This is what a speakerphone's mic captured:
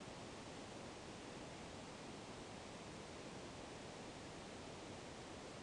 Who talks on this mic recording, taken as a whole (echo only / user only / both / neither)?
neither